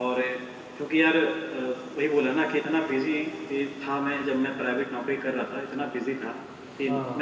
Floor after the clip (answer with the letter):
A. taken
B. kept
B